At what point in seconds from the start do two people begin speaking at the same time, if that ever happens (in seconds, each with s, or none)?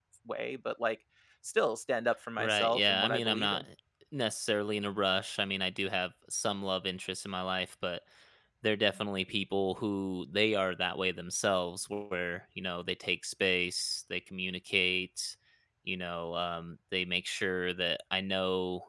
2.4 s